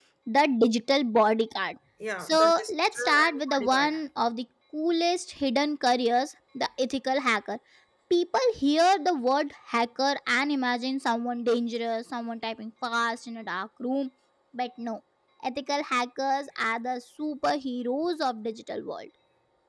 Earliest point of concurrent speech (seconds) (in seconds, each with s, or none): 2.2 s